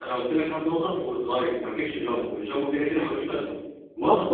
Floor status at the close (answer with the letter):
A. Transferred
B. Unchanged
A